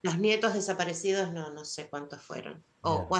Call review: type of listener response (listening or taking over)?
listening